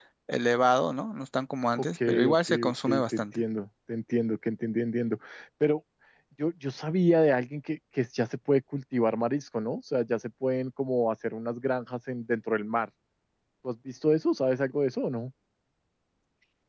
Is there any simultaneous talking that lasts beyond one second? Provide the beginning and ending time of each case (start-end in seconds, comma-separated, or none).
1.8-3.4